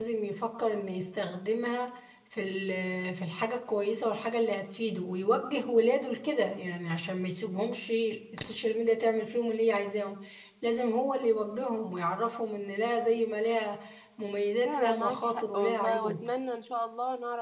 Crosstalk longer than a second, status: present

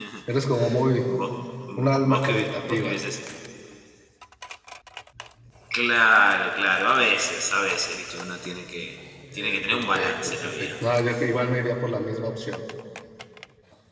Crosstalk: present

